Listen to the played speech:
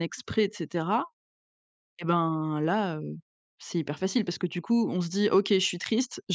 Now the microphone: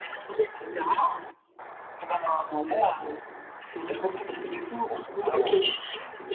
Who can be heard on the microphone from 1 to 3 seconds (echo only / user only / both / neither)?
echo only